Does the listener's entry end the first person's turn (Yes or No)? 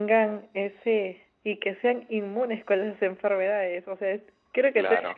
No